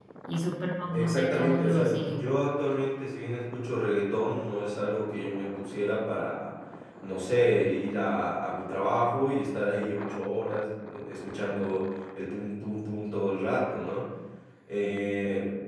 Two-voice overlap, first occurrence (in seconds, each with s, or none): 0.9 s